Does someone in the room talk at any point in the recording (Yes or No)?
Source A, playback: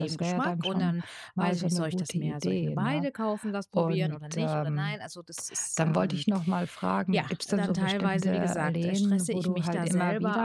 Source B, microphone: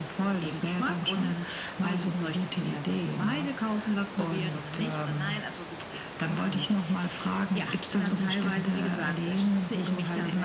No